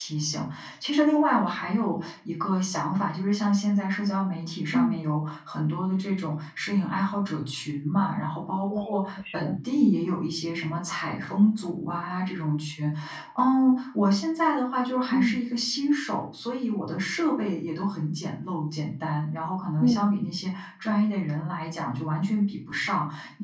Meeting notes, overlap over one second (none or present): none